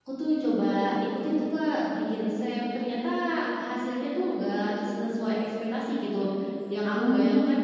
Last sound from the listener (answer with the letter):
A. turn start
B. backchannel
B